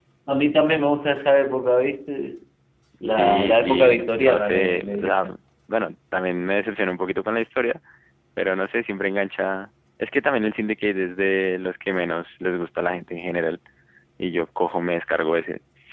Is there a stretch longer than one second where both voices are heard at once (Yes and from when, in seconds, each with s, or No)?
Yes, from 3.1 s